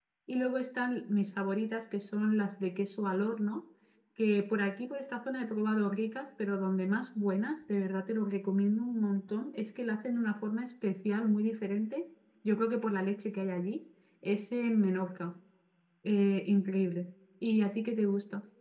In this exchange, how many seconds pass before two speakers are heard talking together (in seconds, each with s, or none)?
none